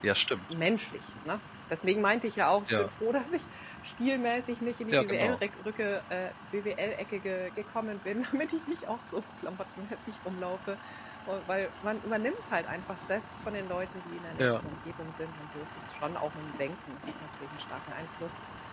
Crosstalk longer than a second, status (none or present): none